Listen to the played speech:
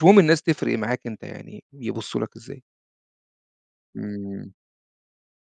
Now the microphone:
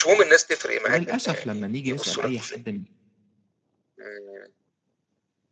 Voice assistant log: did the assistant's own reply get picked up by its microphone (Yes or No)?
Yes